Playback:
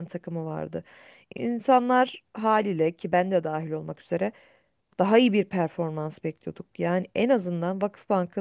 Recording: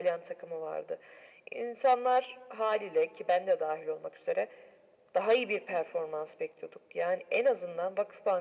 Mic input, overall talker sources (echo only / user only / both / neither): echo only